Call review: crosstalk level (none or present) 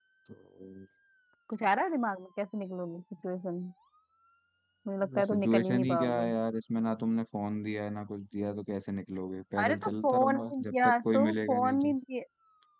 present